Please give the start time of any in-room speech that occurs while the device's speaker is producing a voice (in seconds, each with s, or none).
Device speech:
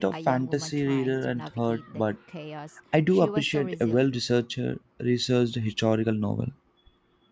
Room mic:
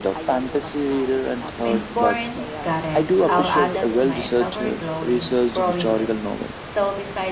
1.6 s